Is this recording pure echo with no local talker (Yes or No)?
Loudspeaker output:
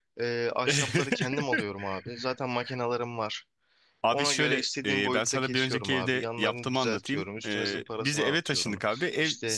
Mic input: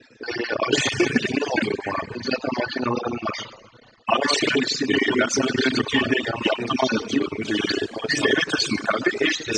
Yes